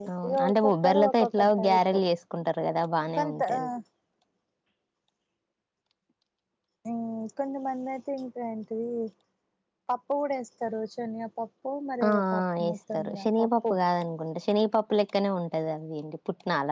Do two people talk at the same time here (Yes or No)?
Yes